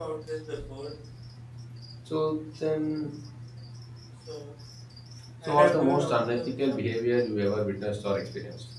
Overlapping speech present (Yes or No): Yes